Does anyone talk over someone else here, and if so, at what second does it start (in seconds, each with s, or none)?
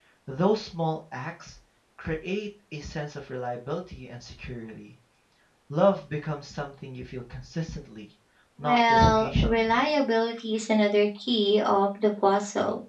8.6 s